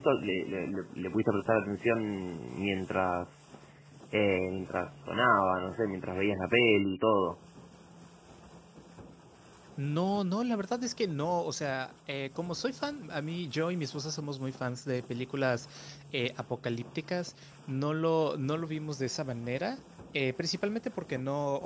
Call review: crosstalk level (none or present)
none